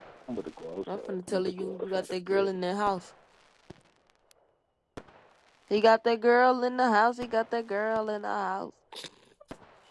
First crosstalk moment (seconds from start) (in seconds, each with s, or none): 0.9 s